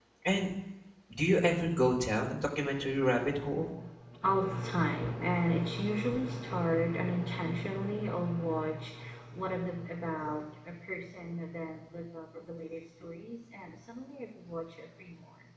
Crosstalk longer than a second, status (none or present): none